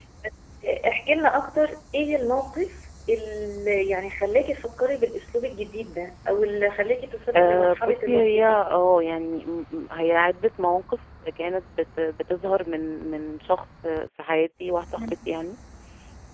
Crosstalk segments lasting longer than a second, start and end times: 7.4-8.6

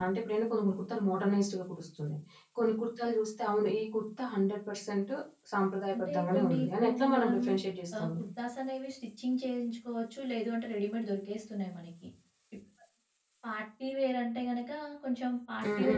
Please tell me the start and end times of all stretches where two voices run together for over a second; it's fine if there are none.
5.9-7.4

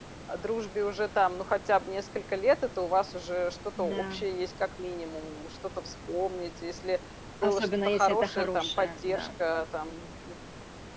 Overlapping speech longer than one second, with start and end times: 7.4-9.3

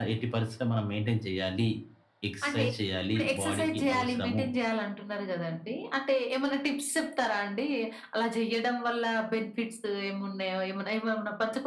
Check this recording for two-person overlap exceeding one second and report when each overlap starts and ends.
3.1-4.4

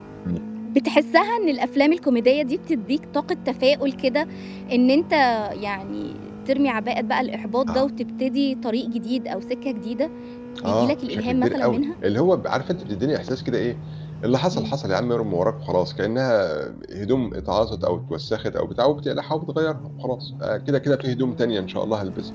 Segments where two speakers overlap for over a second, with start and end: 10.6-11.8

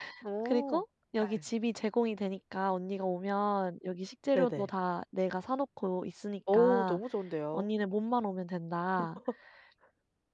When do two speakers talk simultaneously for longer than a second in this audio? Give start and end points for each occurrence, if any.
none

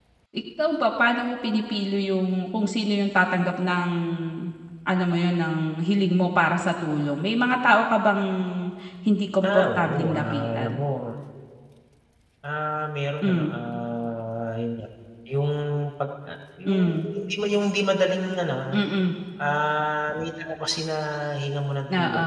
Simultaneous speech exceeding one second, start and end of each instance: 9.4-10.8

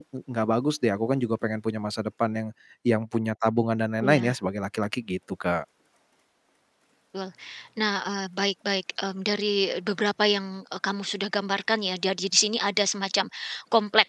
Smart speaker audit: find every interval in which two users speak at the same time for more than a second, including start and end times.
none

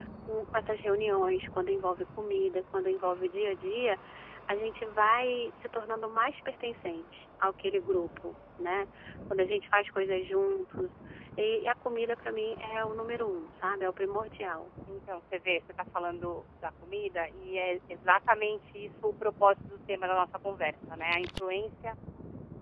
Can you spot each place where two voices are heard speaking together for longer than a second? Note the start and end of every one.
none

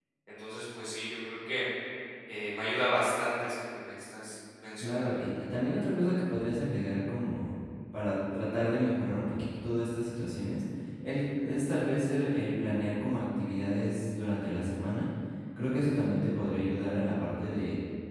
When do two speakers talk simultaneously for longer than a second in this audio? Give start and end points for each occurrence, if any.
none

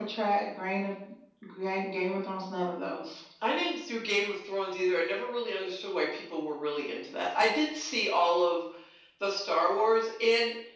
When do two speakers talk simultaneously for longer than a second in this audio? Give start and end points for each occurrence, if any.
none

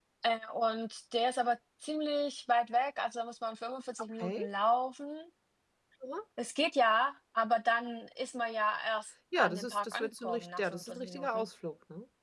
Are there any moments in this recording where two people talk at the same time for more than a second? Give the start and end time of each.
9.4-11.4

